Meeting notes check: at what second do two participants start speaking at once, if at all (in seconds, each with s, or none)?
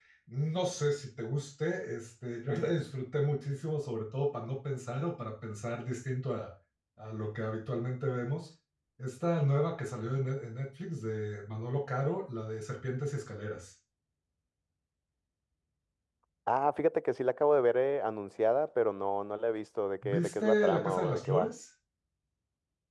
20.0 s